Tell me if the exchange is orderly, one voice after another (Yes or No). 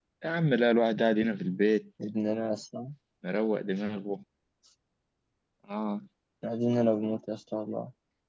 Yes